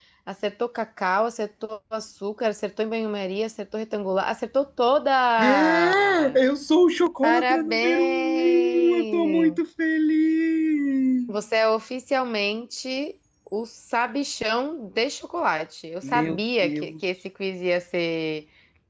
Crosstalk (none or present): present